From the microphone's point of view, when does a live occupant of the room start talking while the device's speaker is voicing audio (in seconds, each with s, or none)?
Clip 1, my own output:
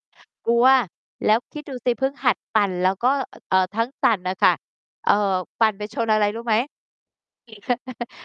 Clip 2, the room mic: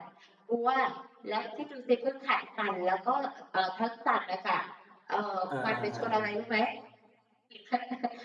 5.5 s